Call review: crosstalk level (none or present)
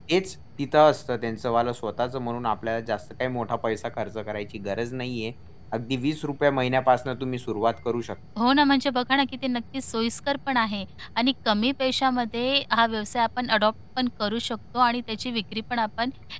none